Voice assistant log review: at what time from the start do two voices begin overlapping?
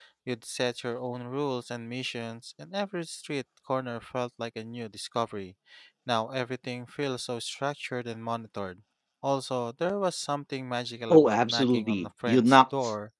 11.1 s

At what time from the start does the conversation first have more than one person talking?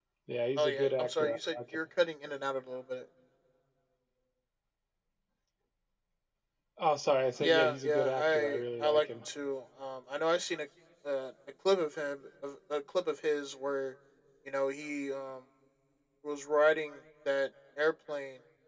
0.6 s

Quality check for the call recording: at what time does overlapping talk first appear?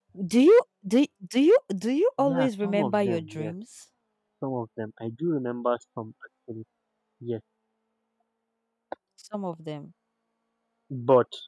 2.2 s

